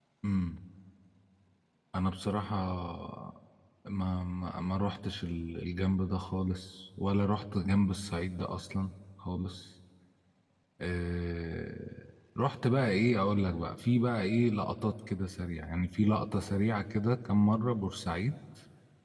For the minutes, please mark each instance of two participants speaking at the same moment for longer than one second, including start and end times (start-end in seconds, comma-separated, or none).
none